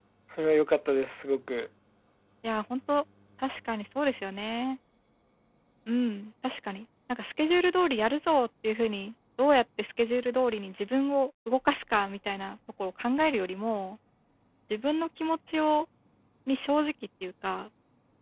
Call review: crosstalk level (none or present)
none